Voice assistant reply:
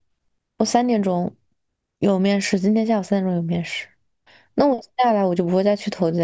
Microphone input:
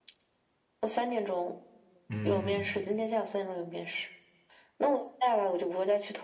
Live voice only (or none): 嗯